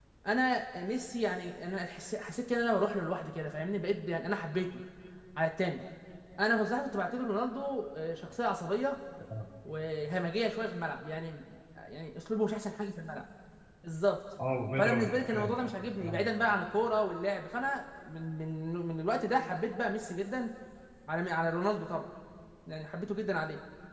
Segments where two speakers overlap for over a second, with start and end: 14.8-16.3

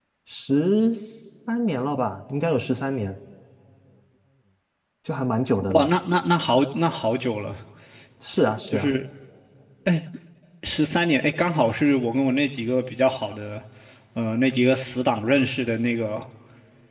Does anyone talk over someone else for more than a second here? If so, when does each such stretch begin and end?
none

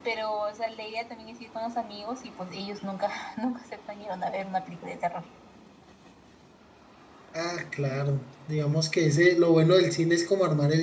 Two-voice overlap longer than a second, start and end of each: none

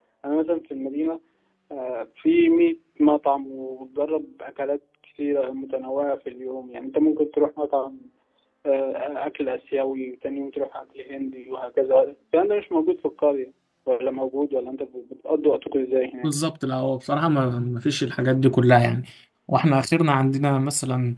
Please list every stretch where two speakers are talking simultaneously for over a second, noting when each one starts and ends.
none

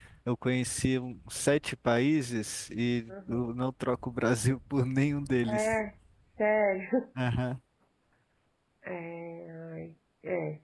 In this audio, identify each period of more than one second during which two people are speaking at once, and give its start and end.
none

